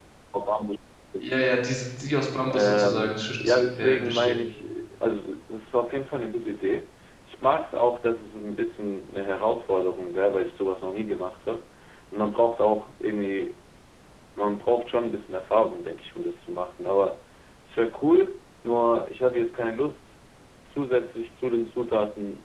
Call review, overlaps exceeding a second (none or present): present